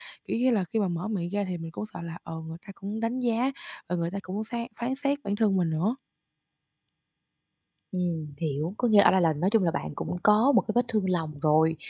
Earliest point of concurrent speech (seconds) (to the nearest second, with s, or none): none